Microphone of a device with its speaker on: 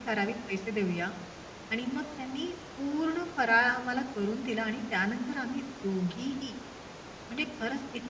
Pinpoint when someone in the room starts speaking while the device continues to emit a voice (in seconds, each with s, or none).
none